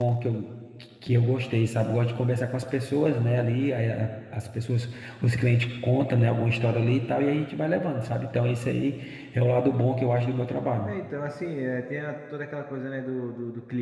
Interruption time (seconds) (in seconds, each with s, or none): none